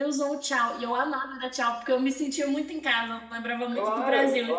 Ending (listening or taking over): taking over